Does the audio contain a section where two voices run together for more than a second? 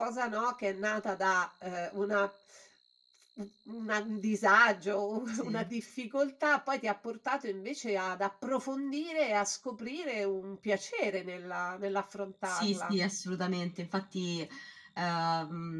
No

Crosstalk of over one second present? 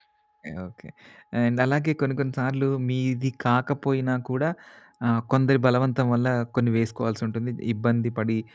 No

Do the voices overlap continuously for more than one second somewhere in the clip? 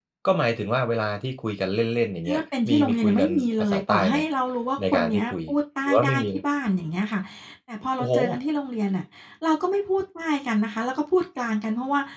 Yes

